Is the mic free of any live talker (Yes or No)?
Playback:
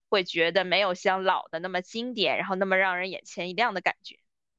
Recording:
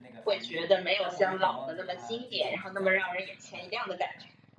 No